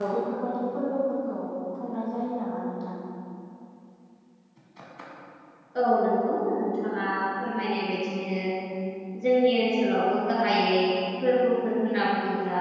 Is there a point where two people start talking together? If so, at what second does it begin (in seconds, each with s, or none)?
none